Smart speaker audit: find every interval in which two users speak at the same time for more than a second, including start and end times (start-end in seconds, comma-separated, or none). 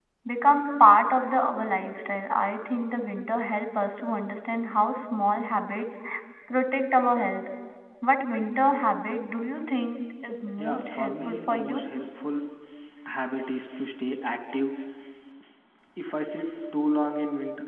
10.6-11.8